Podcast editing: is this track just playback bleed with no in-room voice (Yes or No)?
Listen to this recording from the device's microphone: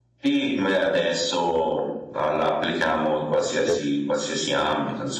No